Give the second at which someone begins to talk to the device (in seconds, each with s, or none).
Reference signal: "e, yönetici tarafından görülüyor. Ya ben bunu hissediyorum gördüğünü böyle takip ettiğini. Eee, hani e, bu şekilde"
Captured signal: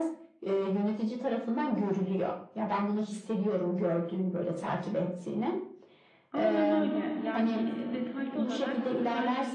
6.3 s